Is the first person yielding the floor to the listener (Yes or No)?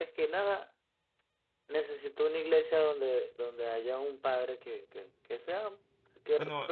No